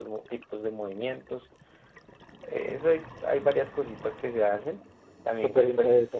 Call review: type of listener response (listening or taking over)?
taking over